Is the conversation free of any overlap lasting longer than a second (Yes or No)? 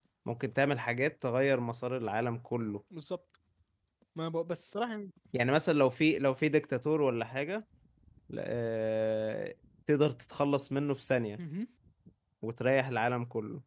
Yes